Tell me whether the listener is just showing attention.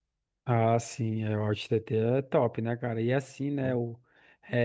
Yes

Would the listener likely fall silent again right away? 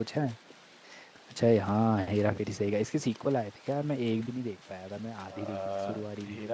No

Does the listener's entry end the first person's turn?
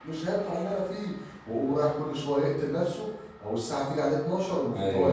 Yes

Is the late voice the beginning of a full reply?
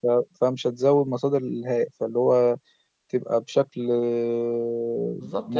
Yes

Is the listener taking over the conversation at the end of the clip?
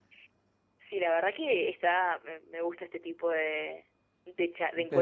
No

